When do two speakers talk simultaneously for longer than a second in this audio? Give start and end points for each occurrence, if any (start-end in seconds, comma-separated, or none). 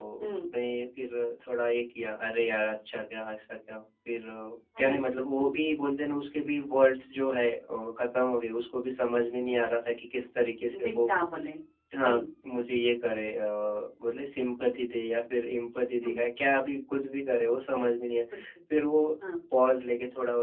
none